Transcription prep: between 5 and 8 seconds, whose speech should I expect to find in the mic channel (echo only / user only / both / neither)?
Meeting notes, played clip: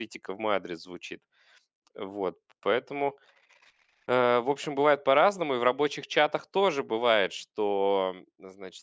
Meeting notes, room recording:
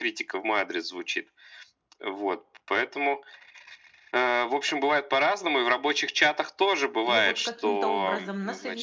both